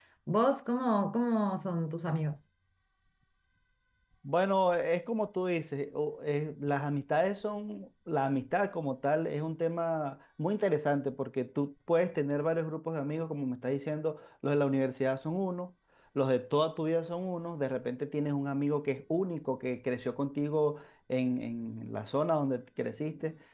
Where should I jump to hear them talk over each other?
none

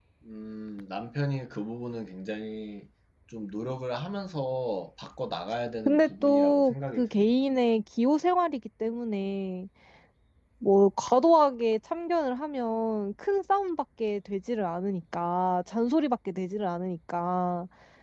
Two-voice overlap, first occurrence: 5.8 s

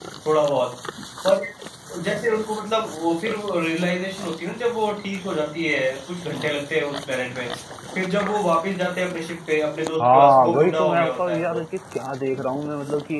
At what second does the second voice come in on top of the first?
10.0 s

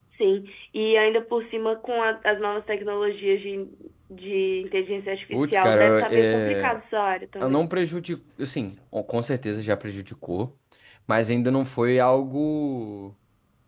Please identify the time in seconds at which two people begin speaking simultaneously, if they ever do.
5.3 s

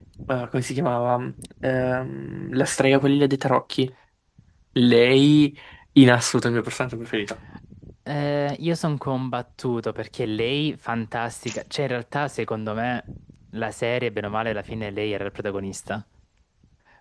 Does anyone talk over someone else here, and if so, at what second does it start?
none

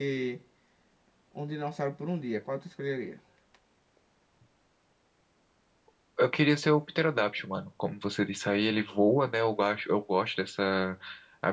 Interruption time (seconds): none

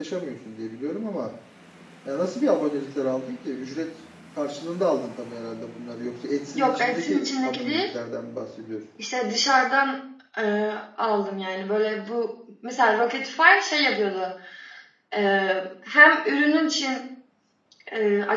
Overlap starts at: 6.5 s

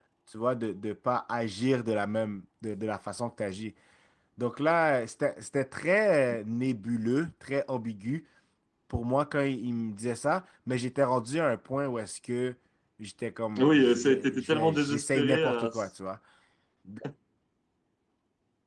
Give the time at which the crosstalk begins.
13.6 s

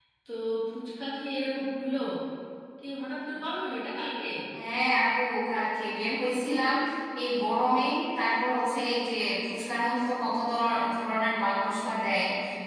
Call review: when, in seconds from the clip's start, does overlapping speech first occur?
none

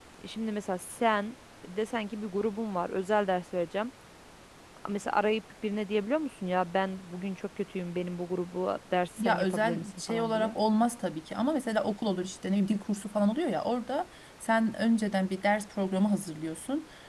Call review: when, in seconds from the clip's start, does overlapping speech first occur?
9.2 s

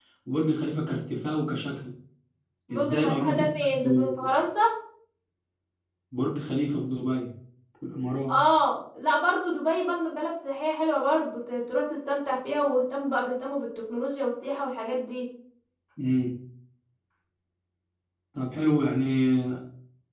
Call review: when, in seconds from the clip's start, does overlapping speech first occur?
2.7 s

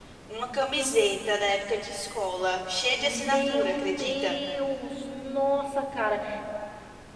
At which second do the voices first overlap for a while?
3.0 s

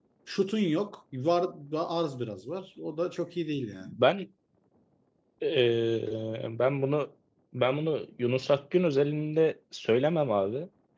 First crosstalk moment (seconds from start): none

